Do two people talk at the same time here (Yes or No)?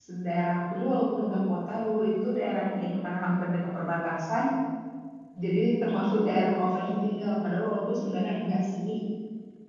No